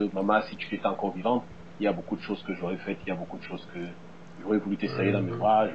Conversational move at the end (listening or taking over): listening